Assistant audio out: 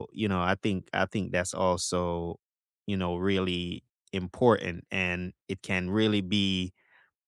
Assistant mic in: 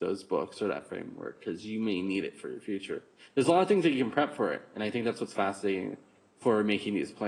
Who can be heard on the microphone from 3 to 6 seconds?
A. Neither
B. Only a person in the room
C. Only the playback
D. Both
B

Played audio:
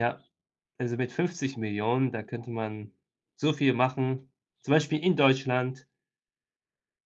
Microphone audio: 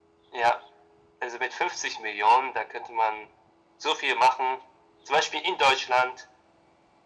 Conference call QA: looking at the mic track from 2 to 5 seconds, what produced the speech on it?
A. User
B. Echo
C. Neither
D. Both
B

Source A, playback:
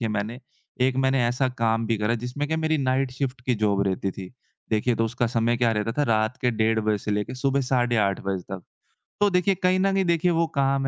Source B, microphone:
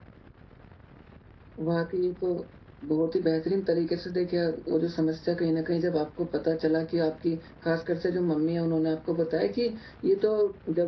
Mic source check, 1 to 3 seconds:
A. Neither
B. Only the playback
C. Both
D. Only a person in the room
D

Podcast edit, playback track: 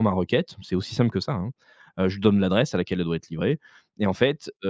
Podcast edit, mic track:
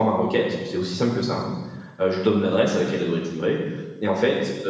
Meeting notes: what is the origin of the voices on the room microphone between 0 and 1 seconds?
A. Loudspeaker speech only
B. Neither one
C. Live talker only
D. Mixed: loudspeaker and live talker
A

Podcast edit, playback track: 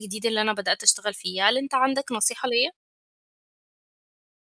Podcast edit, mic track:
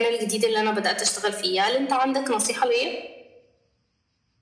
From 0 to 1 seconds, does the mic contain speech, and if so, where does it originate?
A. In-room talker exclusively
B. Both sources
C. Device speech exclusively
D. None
C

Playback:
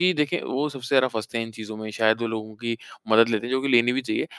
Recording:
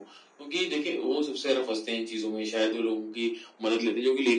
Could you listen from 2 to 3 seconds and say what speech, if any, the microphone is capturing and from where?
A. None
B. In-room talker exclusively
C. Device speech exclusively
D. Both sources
C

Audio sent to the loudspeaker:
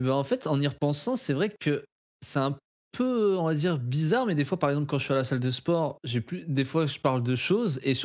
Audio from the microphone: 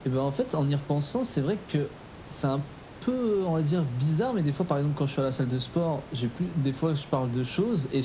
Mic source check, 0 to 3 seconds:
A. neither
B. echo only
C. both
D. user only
B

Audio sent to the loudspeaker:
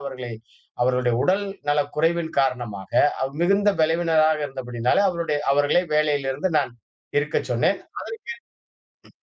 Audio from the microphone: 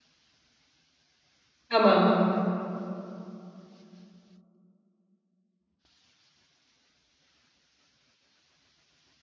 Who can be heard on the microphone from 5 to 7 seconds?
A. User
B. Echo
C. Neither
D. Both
C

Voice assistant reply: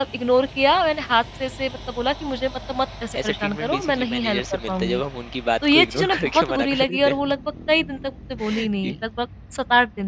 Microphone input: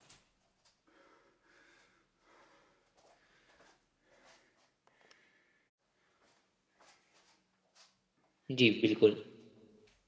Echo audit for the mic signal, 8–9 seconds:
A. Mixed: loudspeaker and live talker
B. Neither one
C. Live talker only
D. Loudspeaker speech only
C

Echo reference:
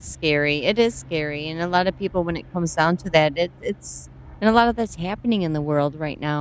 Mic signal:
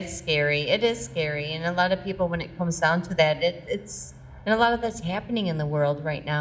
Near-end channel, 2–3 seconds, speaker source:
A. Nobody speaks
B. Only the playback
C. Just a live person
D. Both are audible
B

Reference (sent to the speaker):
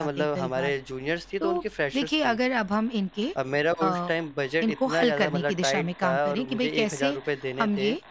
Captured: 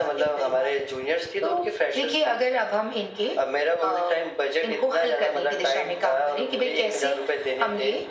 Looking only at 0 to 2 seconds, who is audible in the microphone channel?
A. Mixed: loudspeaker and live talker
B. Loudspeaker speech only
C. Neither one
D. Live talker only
B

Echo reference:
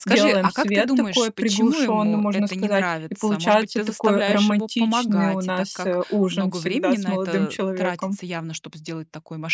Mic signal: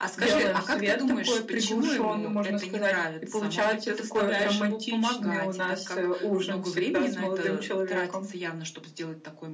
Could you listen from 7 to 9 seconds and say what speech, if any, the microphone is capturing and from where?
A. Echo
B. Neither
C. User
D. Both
A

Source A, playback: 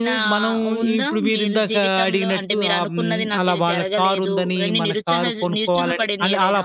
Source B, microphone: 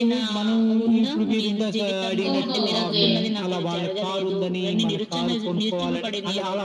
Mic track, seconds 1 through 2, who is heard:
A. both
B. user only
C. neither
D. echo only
D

